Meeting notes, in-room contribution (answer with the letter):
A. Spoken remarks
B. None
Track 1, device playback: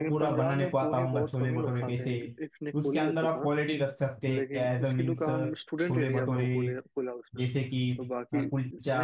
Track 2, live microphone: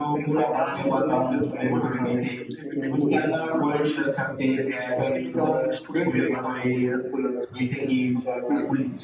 A